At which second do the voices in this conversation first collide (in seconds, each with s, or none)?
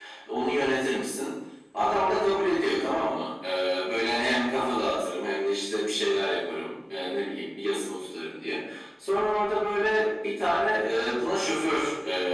none